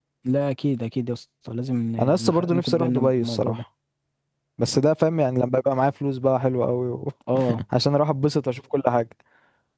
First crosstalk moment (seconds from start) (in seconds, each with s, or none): 2.0 s